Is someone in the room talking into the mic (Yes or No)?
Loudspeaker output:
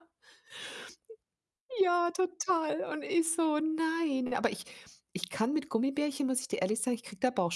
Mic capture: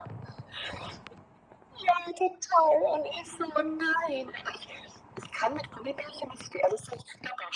No